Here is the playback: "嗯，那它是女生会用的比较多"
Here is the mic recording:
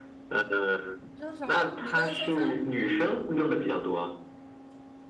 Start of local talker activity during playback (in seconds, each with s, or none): 1.1 s